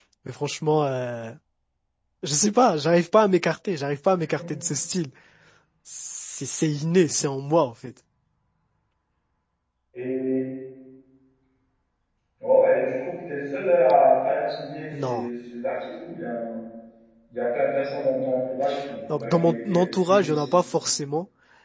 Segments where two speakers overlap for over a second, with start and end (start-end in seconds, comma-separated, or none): 19.1-20.5